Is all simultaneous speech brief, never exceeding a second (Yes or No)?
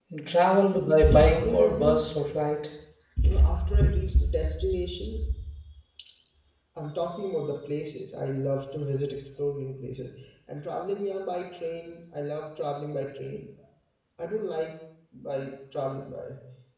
No